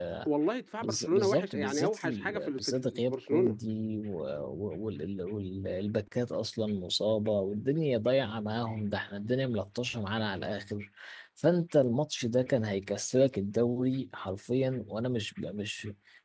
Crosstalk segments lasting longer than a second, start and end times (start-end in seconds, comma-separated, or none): 0.8-3.6